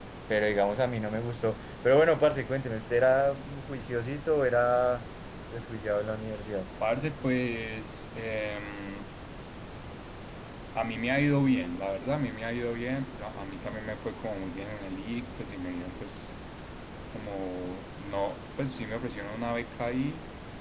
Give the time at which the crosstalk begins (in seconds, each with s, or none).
none